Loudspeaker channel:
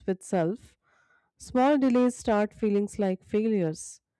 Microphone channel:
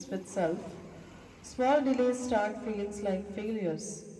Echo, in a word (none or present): present